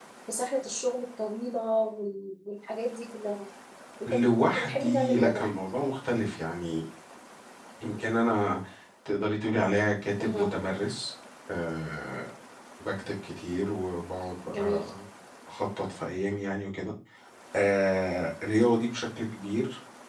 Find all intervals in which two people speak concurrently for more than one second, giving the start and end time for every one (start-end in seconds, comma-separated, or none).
4.1-5.5